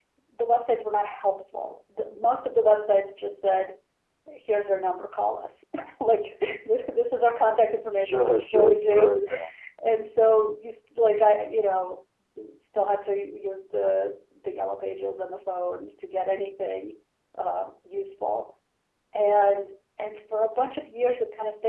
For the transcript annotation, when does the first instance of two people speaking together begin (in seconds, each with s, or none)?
8.0 s